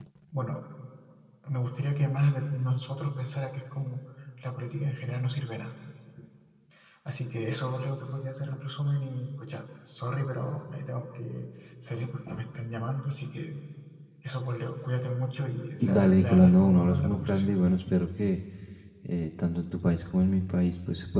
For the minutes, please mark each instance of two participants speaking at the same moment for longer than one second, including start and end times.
15.8-17.5

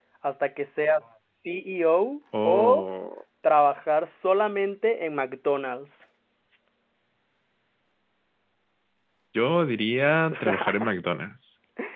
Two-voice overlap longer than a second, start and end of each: none

